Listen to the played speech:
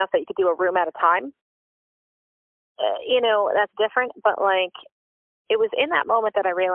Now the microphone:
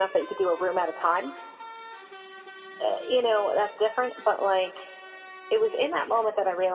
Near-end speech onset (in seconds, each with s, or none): none